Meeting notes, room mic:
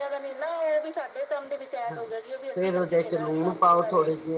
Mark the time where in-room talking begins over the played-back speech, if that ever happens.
1.9 s

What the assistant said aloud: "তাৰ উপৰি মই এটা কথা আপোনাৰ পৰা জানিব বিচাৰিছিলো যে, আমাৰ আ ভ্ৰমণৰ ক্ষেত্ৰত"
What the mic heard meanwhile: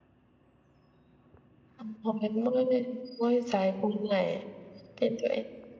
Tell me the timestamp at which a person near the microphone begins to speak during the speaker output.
1.8 s

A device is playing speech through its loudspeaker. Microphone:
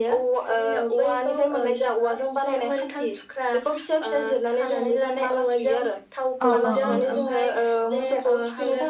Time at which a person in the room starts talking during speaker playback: 6.5 s

